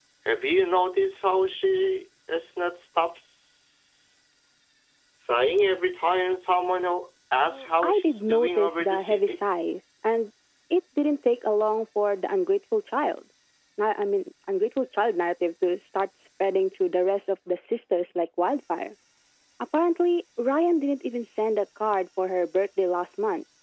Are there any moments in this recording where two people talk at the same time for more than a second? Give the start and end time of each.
7.4-9.4

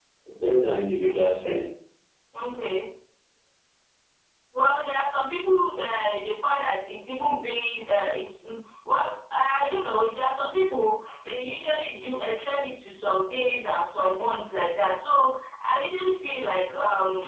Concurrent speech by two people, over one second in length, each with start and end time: none

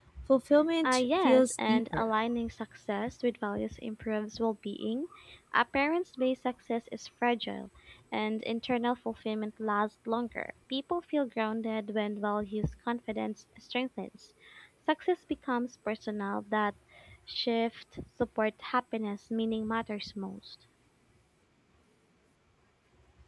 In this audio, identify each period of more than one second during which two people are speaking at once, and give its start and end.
0.8-2.1

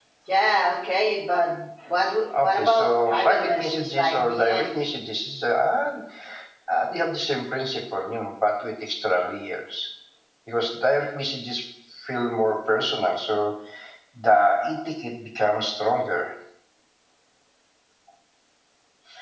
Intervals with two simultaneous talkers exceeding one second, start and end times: 2.4-4.7

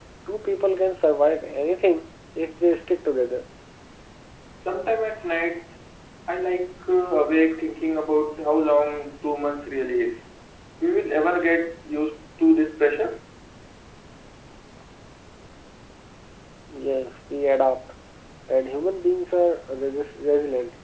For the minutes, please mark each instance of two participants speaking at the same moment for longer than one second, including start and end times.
none

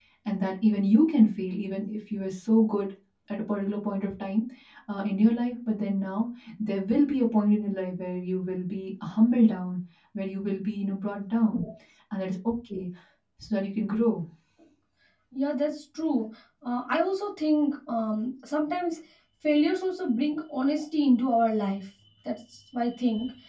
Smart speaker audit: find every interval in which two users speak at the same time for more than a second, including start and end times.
none

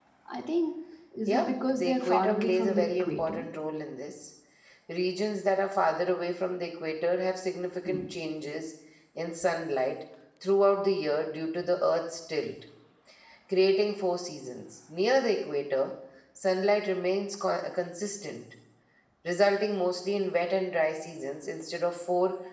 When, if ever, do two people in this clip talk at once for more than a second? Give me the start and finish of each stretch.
1.3-3.4

